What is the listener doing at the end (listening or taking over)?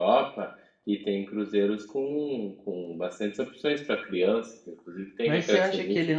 taking over